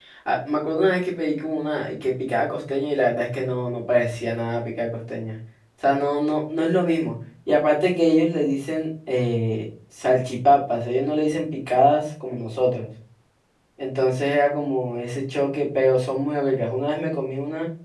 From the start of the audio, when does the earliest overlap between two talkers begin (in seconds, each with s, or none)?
none